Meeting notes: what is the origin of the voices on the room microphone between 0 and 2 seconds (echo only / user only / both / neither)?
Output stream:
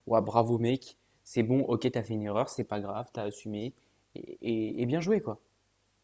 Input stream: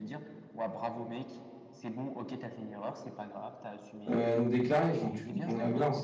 echo only